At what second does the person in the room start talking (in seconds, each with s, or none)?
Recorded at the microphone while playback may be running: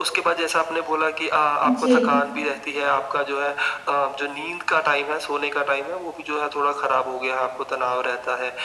1.7 s